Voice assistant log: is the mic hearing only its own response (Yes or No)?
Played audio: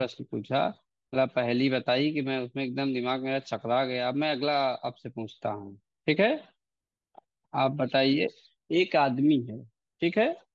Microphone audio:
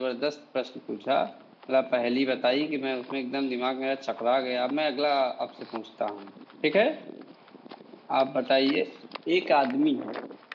Yes